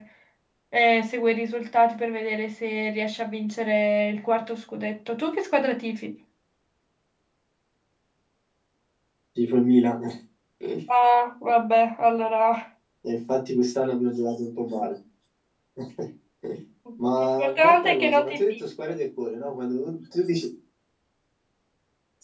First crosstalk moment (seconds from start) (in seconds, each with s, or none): 17.2 s